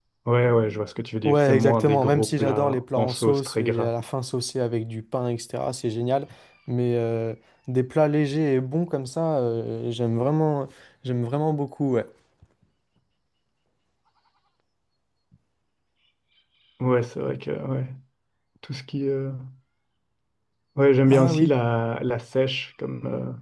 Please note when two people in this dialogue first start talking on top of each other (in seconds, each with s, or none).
1.2 s